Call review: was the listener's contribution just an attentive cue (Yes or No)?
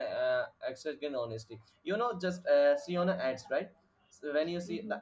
Yes